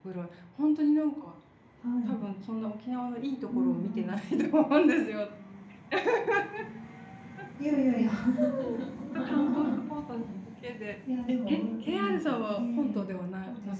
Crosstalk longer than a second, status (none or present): present